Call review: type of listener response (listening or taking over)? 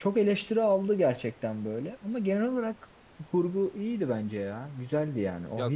taking over